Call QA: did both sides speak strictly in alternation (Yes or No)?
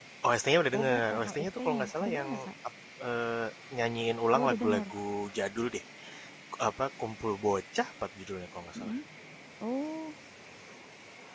No